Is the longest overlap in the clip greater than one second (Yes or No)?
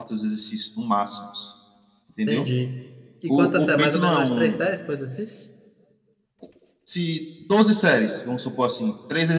Yes